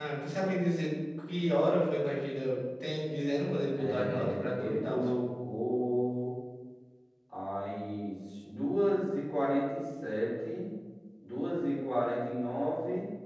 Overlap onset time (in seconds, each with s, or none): 3.8 s